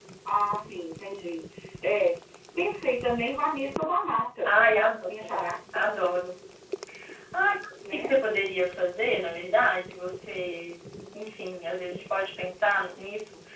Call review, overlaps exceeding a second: none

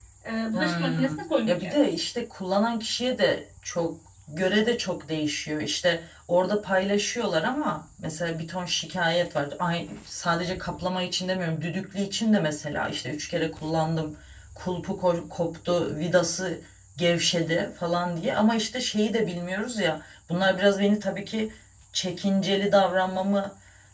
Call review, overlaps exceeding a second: present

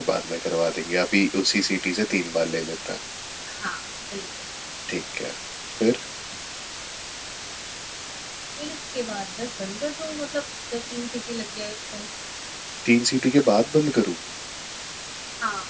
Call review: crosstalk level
none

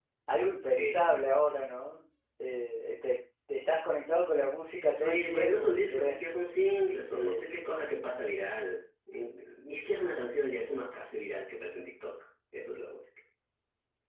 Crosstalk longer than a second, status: present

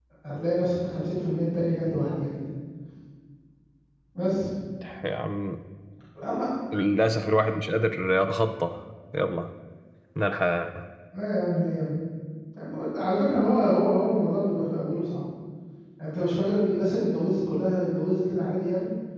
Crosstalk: none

